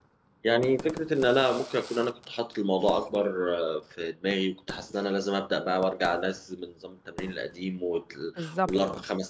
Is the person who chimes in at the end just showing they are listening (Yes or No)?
Yes